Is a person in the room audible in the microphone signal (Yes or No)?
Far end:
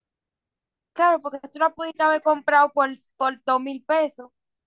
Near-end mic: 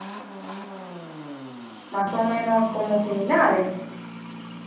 Yes